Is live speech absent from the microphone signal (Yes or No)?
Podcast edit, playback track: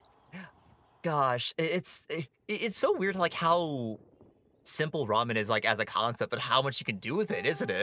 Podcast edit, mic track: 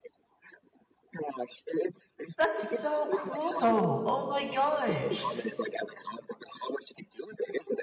No